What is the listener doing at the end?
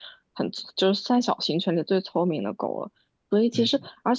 listening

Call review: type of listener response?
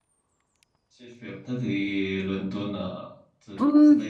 taking over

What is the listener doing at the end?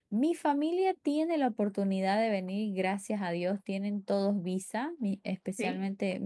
listening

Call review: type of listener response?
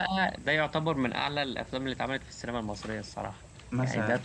taking over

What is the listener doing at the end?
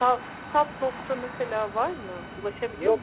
taking over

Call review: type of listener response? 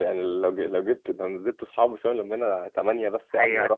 listening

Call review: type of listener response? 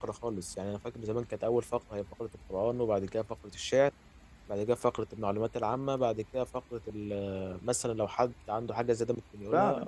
taking over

